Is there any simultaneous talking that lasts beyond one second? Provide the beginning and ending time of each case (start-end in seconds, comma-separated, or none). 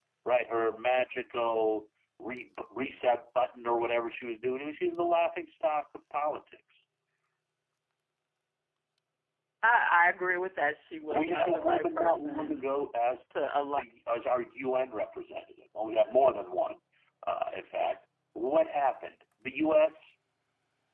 11.1-12.8